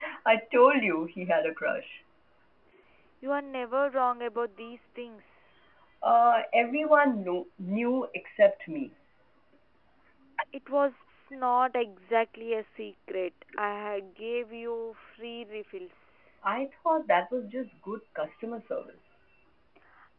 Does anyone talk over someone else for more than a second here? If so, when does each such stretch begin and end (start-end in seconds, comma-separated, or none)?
none